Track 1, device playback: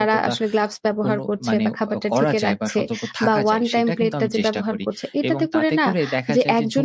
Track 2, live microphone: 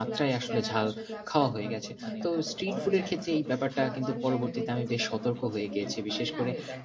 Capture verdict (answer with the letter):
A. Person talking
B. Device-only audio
A